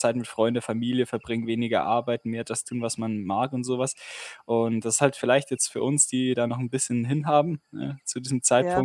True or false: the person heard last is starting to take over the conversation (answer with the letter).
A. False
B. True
A